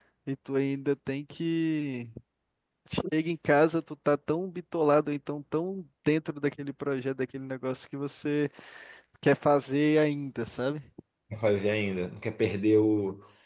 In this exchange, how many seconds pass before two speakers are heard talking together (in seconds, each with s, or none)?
none